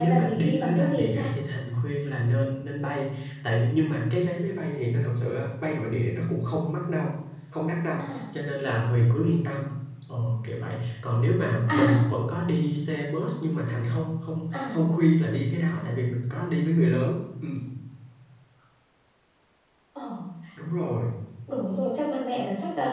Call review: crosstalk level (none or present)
present